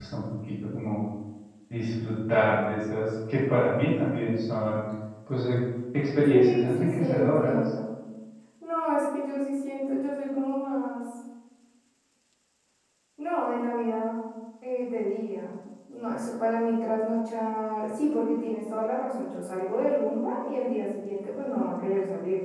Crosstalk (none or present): present